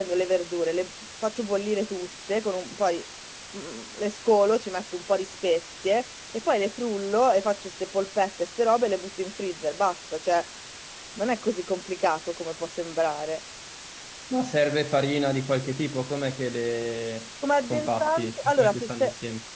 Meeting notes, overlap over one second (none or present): present